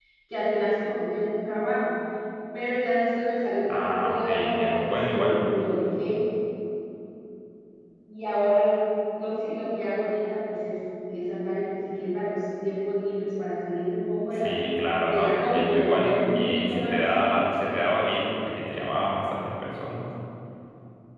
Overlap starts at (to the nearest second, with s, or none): 4 s